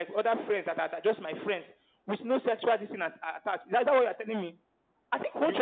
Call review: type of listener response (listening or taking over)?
taking over